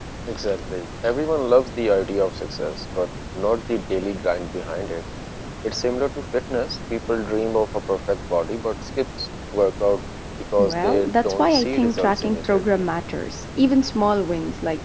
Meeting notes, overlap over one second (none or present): present